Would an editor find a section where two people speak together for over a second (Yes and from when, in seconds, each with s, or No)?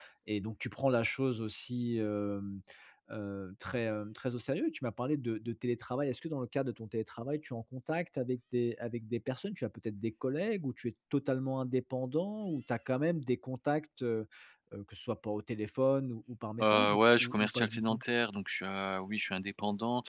Yes, from 16.6 s